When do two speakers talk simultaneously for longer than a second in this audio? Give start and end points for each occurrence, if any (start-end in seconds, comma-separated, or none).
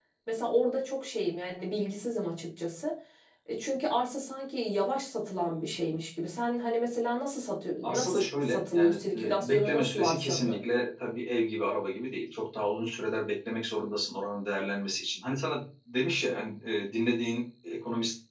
7.8-10.6